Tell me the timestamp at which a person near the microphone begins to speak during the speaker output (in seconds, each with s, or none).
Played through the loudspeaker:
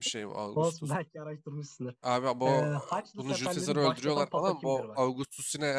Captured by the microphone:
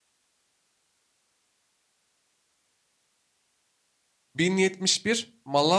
4.4 s